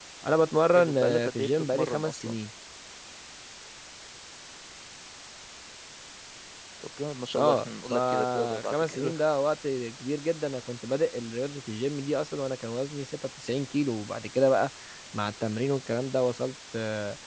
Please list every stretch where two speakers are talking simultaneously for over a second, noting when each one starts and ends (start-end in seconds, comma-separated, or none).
0.8-2.4, 7.3-9.1